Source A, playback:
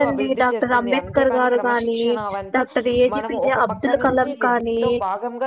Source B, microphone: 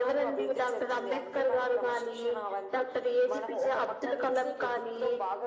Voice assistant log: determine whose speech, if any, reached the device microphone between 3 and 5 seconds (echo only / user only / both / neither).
echo only